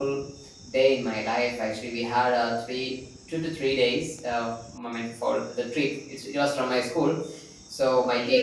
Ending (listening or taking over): taking over